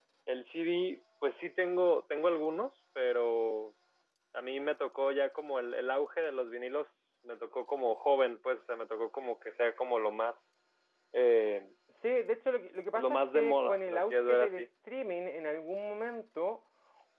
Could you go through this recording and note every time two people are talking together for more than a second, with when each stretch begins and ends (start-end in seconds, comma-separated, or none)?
13.0-14.6